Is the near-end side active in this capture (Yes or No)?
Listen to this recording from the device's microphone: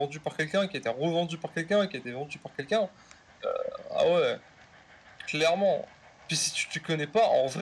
No